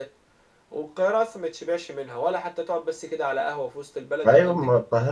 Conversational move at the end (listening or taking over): taking over